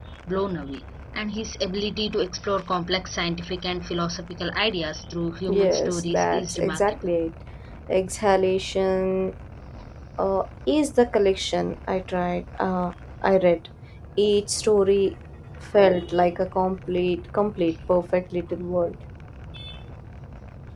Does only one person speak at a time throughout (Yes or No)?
No